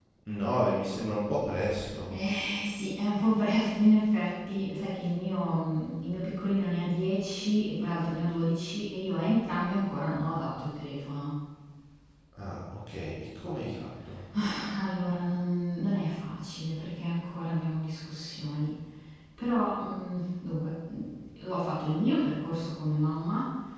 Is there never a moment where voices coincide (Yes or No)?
Yes